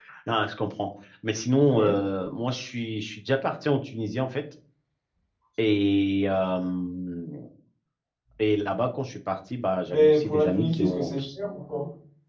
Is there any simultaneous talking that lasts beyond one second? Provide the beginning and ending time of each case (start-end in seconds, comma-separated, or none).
9.9-11.1